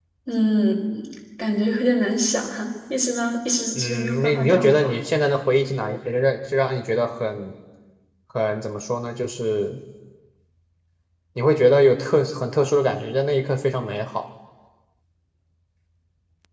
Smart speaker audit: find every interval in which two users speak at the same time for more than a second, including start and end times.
3.7-5.0

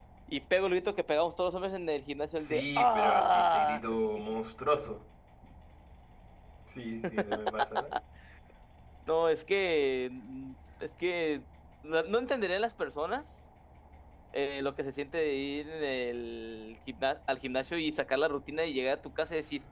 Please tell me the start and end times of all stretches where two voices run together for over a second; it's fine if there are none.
2.4-3.8

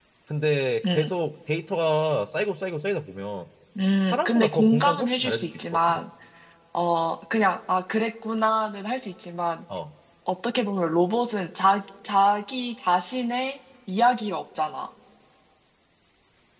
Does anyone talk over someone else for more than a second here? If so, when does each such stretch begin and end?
4.0-6.0

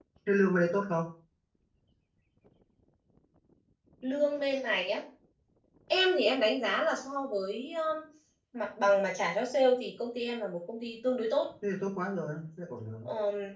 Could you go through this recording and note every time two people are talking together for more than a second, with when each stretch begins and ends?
none

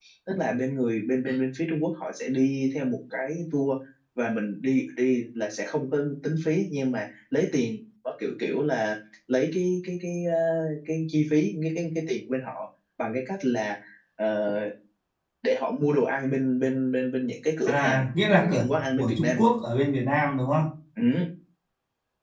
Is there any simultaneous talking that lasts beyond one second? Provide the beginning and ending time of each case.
17.6-19.4

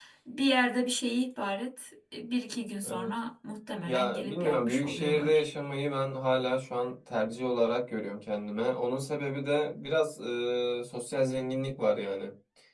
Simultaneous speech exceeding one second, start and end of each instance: 3.9-5.4

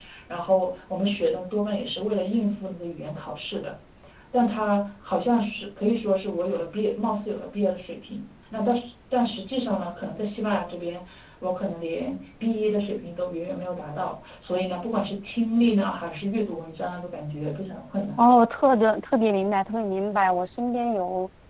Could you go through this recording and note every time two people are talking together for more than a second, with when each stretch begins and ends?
none

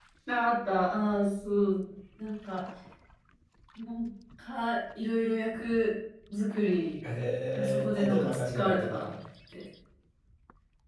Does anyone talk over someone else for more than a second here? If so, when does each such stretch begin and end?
7.5-9.1

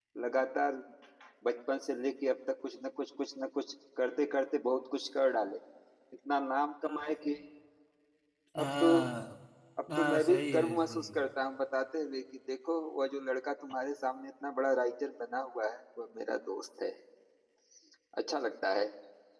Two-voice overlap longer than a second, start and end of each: 10.0-11.2

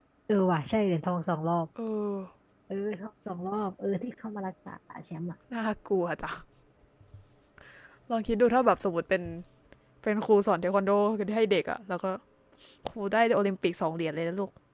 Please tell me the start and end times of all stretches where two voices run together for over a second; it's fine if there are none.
none

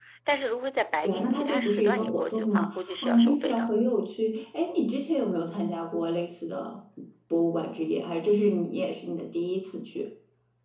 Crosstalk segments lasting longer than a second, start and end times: 1.0-3.7

